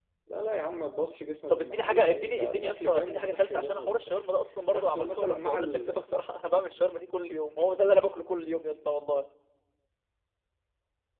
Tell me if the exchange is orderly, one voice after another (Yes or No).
No